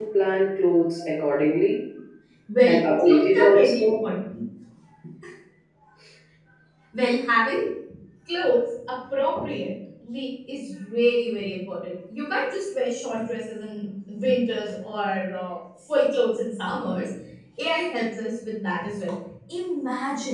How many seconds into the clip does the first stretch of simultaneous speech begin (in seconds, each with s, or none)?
2.7 s